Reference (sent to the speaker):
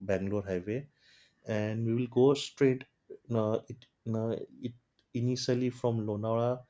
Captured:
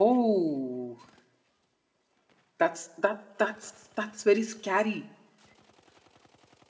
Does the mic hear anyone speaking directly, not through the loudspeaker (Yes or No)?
Yes